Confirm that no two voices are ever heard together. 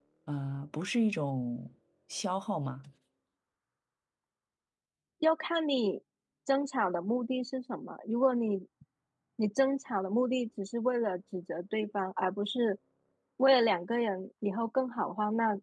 Yes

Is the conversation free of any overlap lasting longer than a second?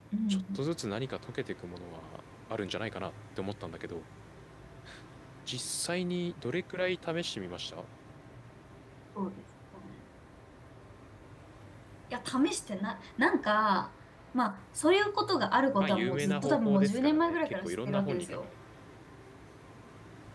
No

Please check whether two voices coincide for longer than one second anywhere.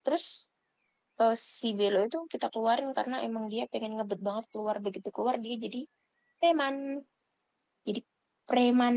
No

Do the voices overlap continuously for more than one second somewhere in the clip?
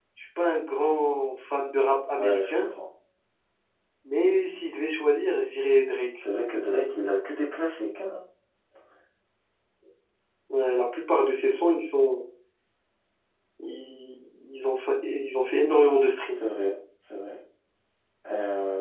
No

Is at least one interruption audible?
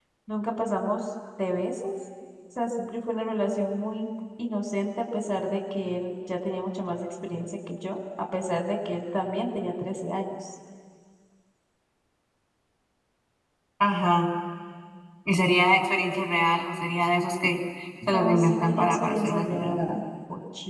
Yes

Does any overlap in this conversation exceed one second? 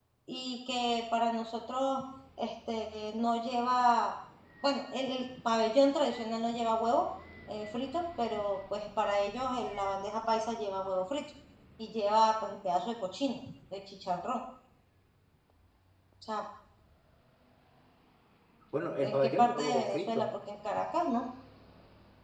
Yes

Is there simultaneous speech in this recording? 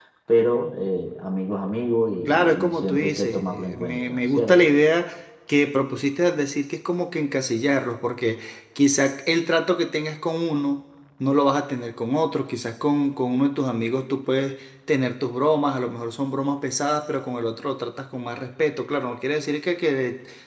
Yes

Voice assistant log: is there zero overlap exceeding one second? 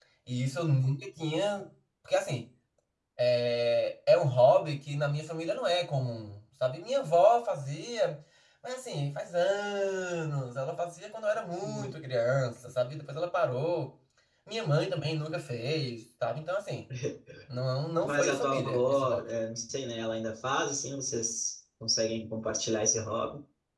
No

